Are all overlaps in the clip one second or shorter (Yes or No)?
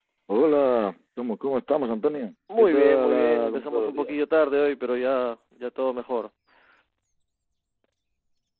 No